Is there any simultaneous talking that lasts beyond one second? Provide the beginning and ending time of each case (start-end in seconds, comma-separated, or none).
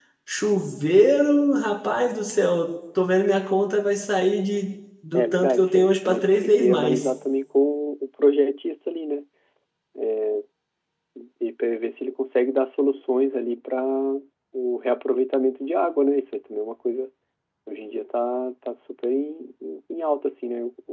5.1-7.1